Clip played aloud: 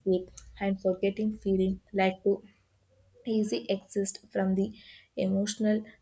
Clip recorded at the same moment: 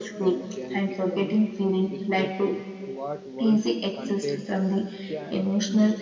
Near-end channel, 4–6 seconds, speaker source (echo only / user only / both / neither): both